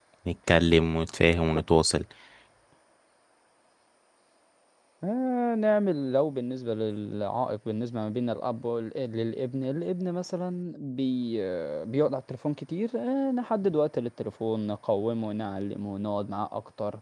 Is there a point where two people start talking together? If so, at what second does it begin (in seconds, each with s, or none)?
none